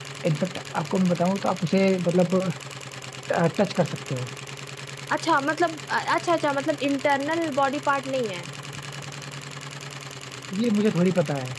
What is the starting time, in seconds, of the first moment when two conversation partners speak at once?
none

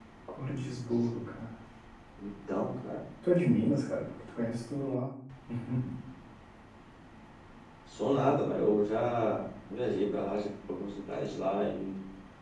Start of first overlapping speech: none

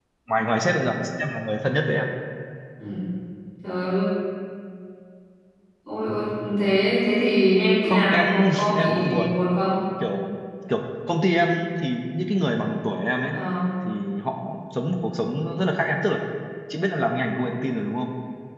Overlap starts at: 7.8 s

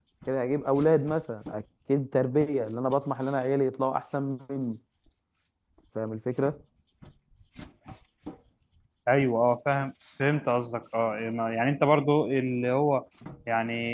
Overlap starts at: none

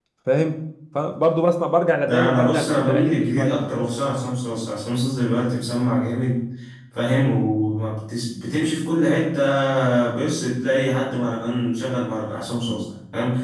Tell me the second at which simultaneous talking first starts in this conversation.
2.1 s

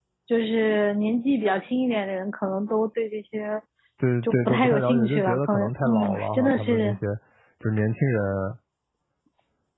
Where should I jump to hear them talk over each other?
4.2 s

